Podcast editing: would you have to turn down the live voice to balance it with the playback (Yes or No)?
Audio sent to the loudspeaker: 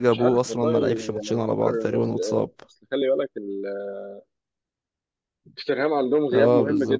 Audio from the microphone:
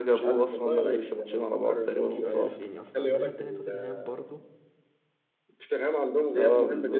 No